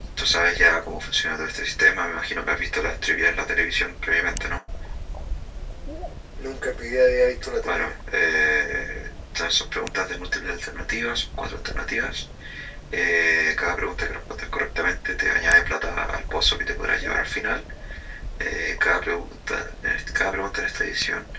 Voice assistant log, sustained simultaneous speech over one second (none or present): none